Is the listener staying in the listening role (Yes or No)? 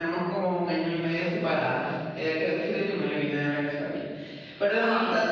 Yes